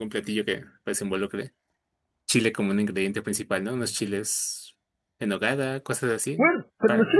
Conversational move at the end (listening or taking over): taking over